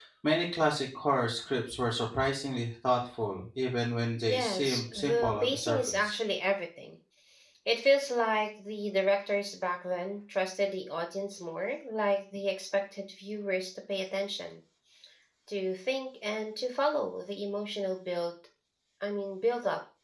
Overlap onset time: 4.2 s

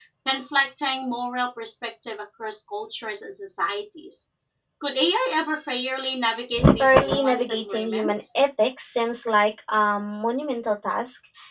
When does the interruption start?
6.6 s

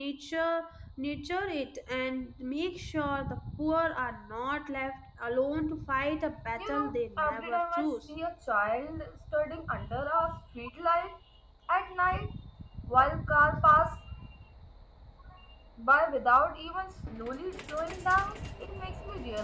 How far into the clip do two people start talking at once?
6.6 s

